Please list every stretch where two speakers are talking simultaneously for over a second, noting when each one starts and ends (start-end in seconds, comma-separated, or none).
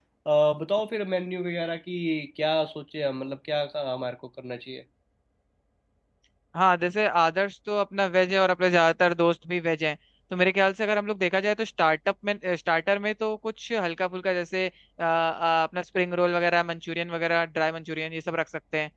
none